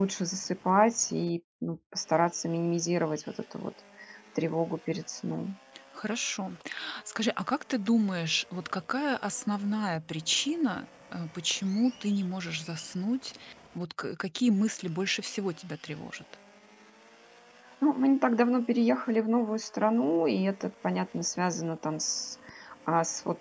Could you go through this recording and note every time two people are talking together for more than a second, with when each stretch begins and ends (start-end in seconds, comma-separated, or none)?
none